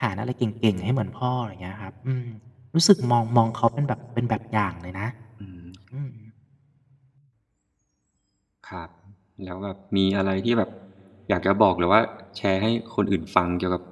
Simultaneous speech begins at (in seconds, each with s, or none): none